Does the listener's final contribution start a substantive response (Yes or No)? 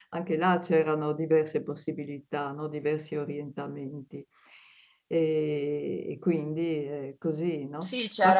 Yes